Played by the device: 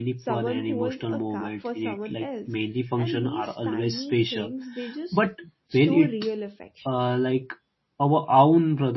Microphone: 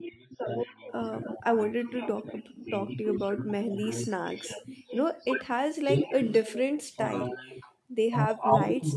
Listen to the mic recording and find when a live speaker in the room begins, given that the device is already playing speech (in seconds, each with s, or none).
1.0 s